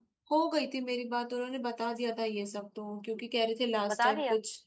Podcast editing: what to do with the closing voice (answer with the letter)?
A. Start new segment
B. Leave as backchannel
B